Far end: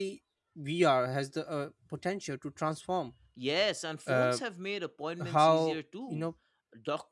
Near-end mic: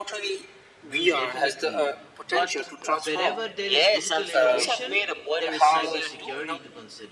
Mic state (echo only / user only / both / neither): both